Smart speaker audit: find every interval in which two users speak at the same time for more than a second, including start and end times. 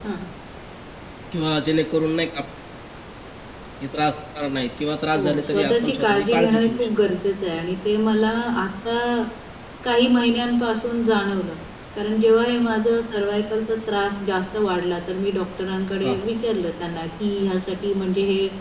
5.1-7.1

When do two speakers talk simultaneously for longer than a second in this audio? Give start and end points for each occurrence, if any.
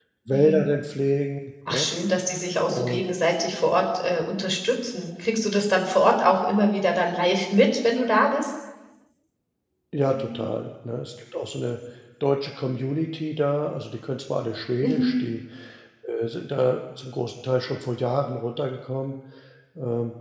none

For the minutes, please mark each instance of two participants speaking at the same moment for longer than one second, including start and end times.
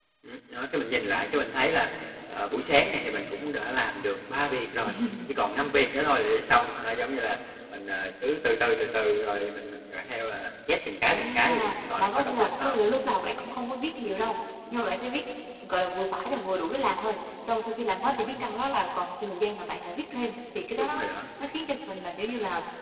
11.0-12.8

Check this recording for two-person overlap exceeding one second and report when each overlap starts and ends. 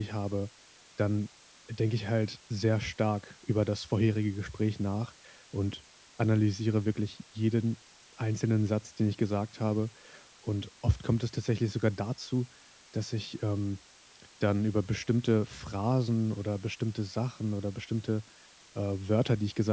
none

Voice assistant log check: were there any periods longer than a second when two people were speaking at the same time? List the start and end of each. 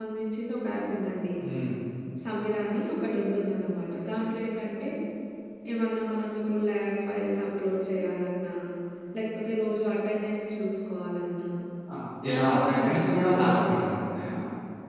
12.2-13.9

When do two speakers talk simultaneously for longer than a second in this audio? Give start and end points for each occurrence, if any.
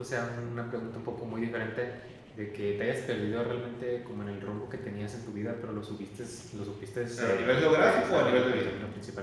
7.2-8.7

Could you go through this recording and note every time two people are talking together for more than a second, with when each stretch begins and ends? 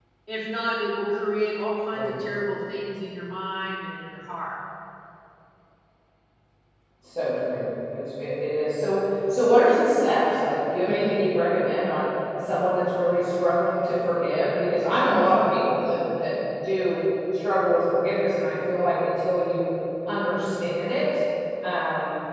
none

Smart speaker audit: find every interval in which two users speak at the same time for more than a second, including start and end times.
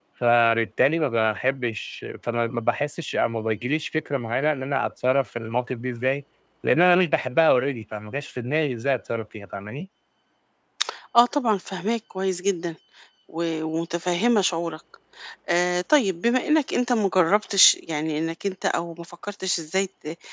none

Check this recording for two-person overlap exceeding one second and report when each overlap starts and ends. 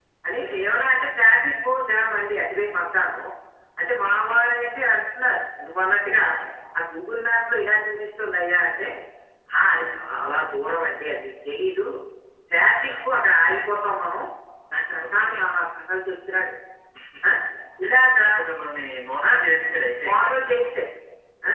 none

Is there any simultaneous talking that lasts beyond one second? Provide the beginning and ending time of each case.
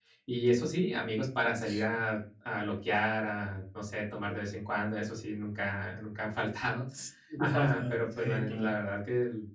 7.4-8.7

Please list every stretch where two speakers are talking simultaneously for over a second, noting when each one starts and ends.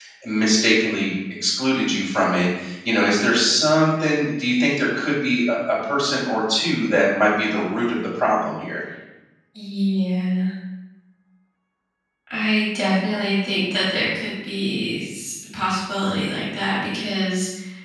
none

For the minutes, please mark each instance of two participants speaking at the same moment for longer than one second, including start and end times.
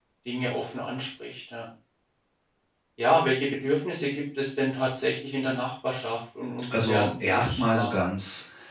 6.7-7.9

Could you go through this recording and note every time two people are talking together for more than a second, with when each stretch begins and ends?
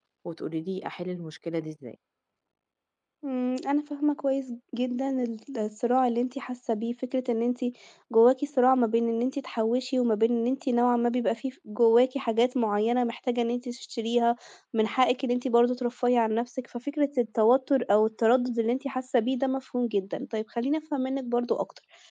none

